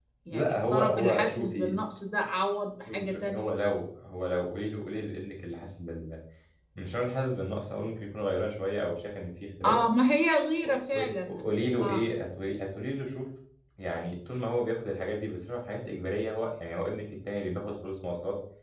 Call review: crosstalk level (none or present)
present